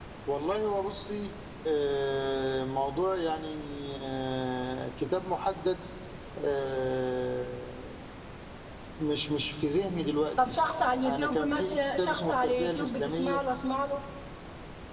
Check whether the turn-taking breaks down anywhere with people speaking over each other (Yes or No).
Yes